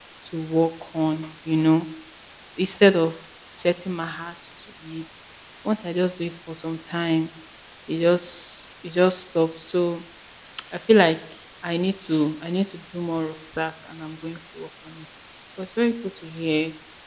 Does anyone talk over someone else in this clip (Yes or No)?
No